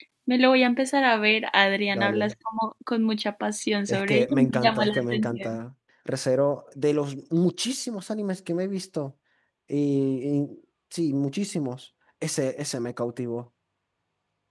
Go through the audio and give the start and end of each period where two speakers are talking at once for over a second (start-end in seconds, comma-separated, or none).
3.9-5.6